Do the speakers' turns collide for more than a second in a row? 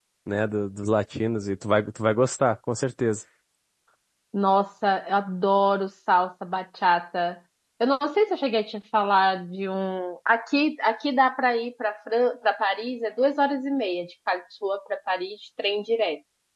No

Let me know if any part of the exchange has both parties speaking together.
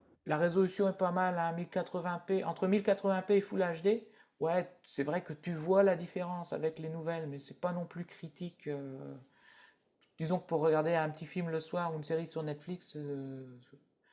No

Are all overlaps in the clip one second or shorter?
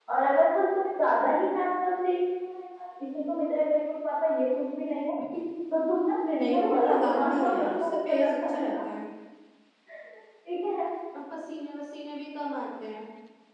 No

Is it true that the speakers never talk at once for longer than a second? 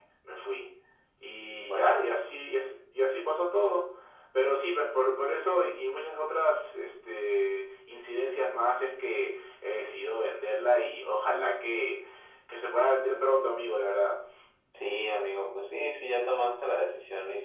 Yes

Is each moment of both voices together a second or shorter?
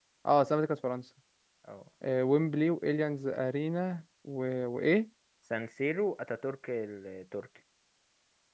Yes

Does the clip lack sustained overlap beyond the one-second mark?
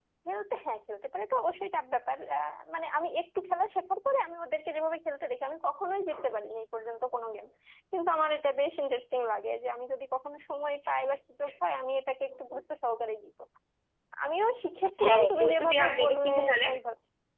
No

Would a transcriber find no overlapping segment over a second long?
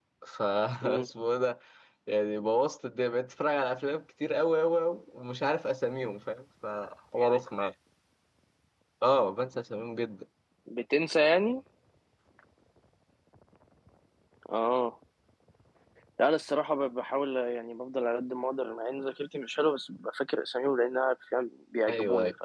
Yes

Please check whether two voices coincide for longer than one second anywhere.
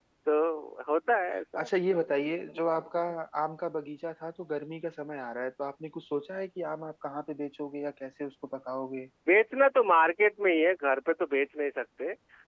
No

